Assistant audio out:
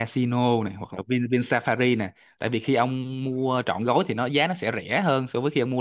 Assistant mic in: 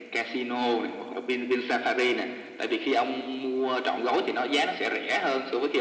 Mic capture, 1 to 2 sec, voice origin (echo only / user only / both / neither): echo only